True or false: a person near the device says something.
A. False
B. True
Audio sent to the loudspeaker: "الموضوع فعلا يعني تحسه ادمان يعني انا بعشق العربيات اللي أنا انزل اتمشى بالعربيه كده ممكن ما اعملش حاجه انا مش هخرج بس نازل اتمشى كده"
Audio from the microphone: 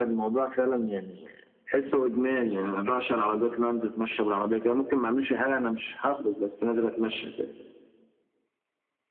A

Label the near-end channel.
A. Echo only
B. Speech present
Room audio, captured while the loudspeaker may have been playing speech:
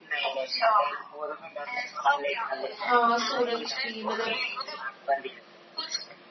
B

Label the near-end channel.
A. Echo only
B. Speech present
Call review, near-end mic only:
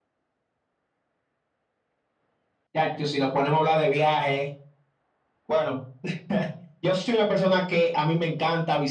A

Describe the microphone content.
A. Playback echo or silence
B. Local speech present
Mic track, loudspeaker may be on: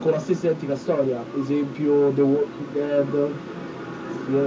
A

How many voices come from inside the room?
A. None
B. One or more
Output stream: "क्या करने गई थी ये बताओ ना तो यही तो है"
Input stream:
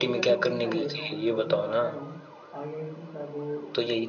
B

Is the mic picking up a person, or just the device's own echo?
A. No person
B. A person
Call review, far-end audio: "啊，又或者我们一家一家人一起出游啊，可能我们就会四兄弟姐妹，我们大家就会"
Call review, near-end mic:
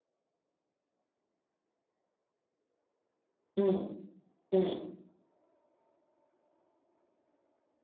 B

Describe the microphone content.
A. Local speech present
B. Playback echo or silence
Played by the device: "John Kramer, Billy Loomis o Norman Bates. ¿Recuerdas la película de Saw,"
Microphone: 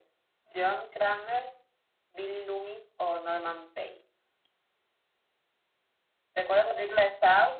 B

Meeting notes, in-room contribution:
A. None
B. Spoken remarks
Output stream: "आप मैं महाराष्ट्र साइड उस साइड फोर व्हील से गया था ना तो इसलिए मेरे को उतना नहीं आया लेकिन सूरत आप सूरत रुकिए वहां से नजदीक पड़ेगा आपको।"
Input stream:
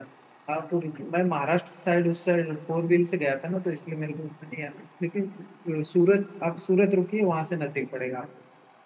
A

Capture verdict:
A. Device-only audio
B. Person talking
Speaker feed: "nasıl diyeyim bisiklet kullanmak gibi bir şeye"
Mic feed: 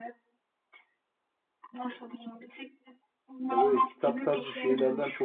B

